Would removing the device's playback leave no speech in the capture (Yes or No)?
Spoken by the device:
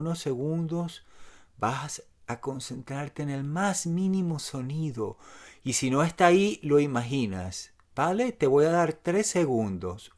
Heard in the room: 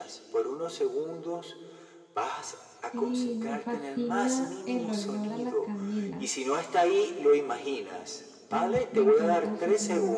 No